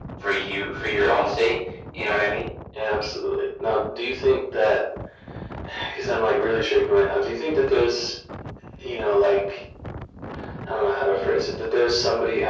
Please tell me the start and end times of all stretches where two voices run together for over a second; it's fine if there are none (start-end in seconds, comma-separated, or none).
none